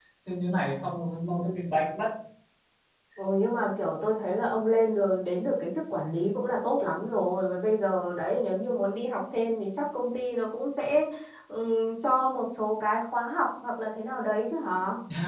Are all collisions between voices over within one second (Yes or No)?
Yes